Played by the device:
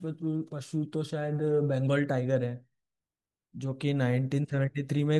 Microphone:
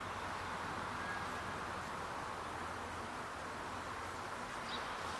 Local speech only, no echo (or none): none